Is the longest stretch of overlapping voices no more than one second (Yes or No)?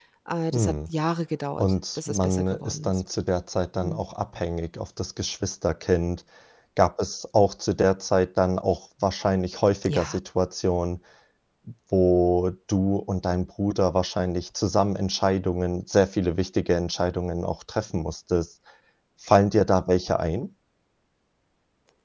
No